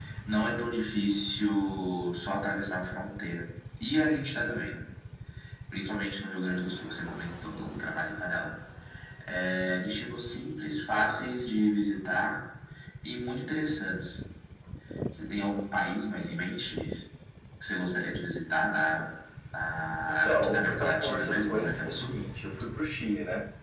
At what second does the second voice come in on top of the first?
20.1 s

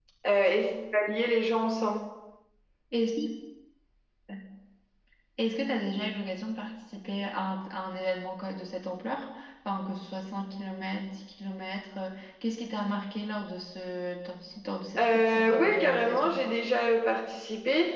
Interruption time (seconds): 15.0 s

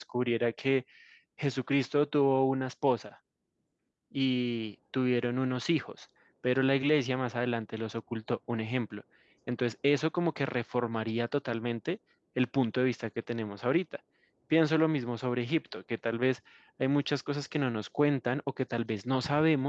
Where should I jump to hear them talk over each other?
none

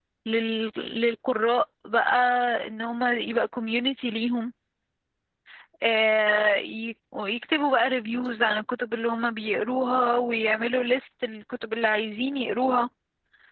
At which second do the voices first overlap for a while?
none

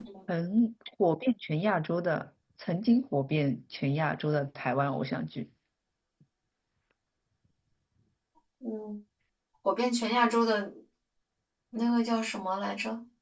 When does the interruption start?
none

